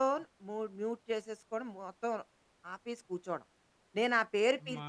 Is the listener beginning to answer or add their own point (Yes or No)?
No